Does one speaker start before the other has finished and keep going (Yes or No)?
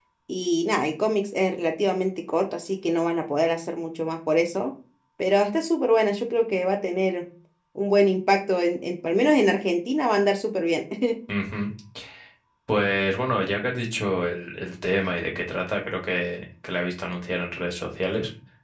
No